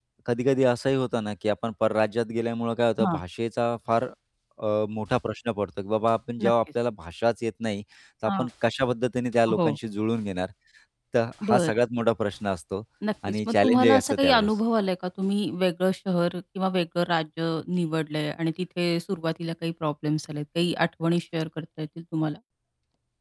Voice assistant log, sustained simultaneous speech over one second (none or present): present